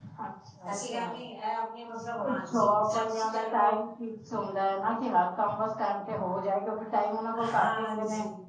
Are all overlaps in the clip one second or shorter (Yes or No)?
No